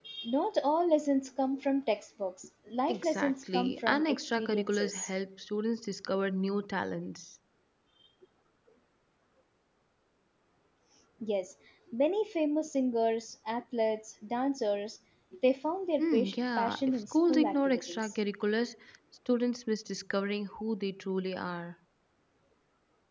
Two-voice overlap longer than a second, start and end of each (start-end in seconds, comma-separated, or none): 2.9-5.1, 16.0-18.1